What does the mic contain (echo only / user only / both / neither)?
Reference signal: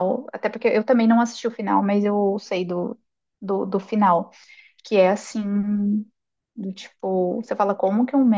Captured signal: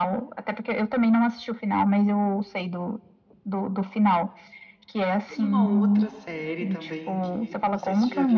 both